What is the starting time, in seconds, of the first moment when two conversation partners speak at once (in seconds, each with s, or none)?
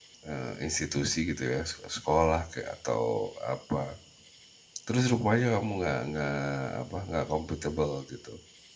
none